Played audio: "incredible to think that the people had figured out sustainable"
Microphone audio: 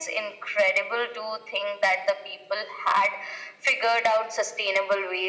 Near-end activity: none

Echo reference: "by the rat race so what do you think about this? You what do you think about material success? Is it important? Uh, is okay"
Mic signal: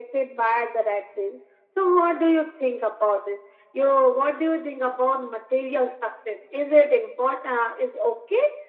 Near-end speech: none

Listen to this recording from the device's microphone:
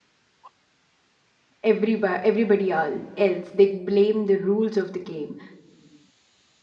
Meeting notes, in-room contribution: present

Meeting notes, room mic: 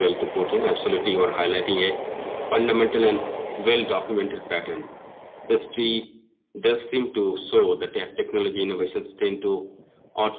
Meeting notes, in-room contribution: none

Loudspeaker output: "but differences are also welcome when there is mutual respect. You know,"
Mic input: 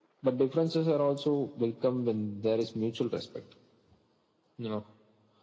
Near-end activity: none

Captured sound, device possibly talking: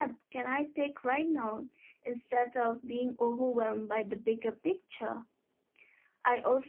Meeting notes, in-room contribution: present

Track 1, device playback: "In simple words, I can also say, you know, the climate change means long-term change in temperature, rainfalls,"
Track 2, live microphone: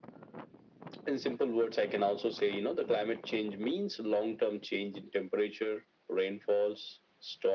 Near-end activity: none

